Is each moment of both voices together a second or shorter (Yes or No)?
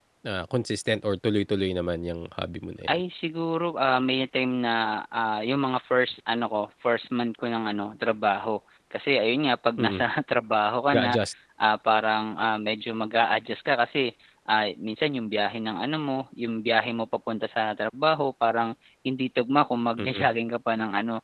Yes